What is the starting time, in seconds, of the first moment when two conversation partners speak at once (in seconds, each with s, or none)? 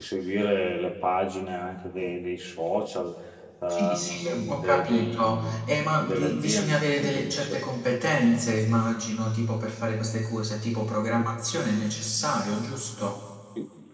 3.7 s